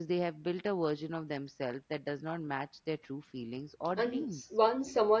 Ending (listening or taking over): taking over